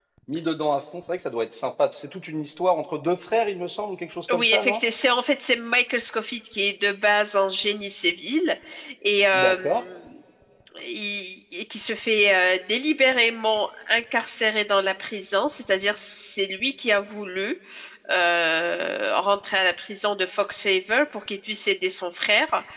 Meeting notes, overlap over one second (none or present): none